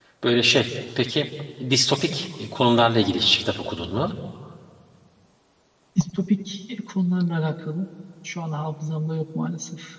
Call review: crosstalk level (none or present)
none